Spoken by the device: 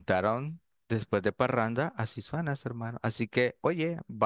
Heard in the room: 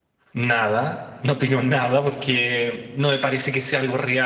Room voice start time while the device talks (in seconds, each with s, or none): 0.3 s